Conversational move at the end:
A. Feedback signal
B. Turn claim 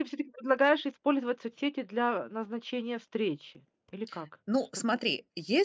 B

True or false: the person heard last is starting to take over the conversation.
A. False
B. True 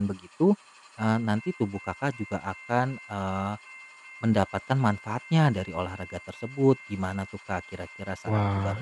B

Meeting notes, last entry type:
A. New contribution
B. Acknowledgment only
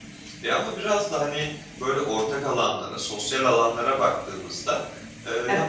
B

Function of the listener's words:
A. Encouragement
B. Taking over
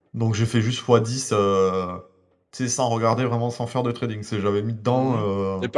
B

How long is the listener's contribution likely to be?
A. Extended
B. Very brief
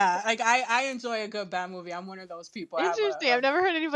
A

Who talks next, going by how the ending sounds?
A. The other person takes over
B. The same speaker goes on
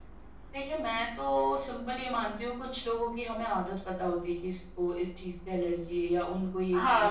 A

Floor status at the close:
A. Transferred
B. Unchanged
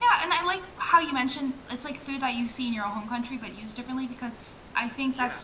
B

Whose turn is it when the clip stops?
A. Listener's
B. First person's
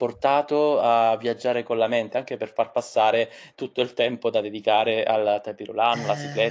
A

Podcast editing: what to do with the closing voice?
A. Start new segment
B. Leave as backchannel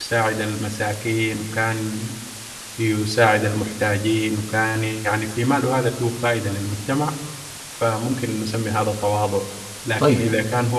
B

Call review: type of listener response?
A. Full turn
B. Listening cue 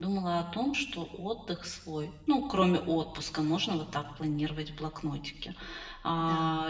B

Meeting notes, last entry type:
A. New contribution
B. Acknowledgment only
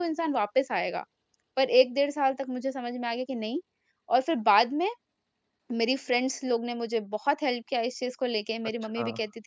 B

